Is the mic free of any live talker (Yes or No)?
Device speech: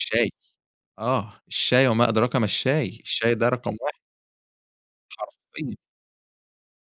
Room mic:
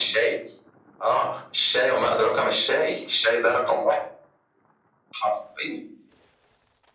Yes